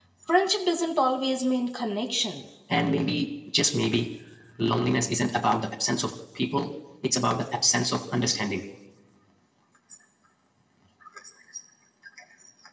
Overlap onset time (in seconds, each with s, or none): none